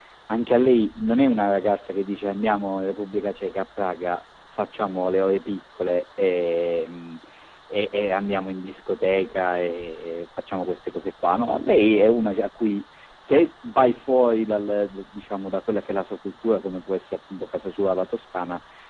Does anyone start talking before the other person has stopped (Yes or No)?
No